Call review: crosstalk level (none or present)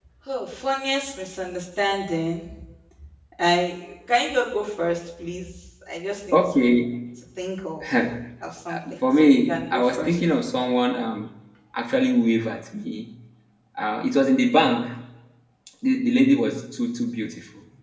present